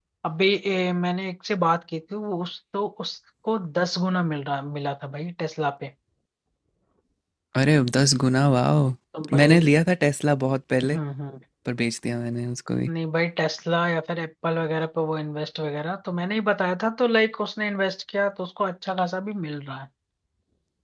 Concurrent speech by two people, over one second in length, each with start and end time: none

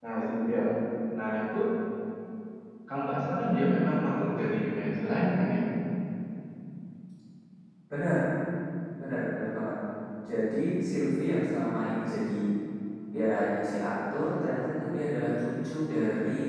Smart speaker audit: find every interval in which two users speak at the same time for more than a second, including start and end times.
none

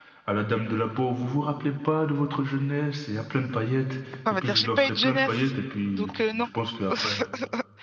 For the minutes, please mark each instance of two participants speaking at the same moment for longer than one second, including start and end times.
4.3-5.5

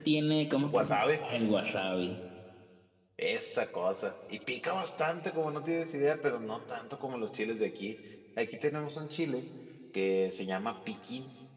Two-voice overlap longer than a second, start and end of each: none

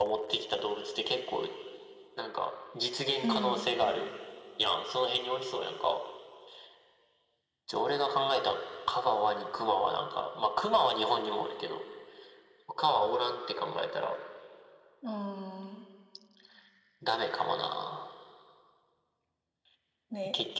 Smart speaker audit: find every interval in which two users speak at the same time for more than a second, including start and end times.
none

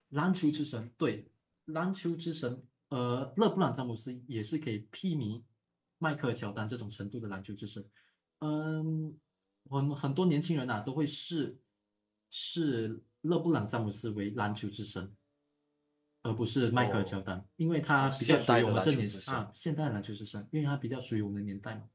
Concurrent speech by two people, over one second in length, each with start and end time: 18.0-19.5

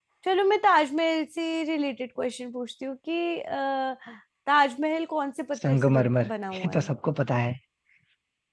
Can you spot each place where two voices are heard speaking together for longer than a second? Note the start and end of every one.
5.6-6.9

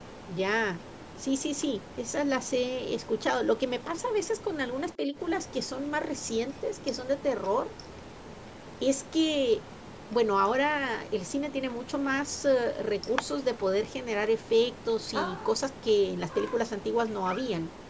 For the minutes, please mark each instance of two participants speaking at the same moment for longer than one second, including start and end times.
none

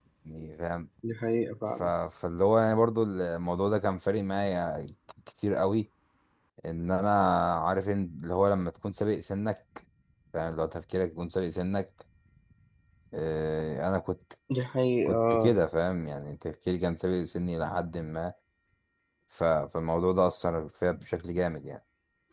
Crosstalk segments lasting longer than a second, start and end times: none

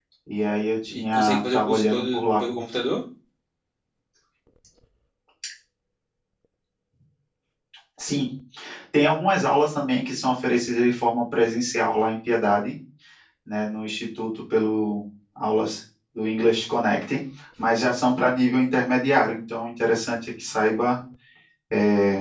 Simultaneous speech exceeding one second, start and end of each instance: 0.9-2.4

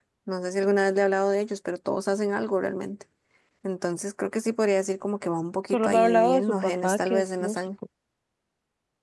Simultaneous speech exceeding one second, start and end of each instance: 5.7-7.6

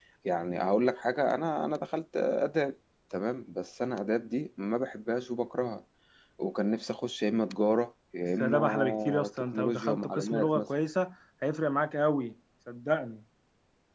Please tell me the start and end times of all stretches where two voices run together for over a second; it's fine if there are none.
8.4-10.7

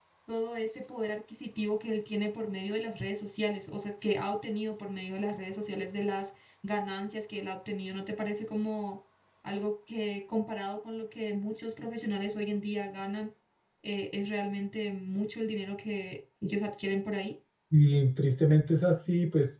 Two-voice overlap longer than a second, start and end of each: none

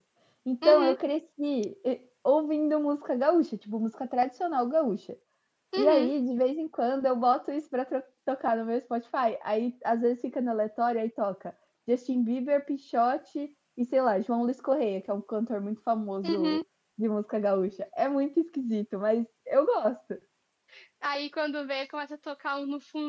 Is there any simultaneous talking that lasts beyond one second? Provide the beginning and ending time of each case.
none

